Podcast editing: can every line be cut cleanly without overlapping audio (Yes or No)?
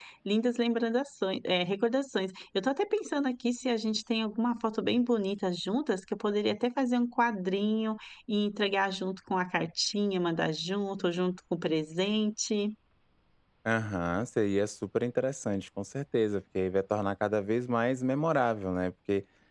Yes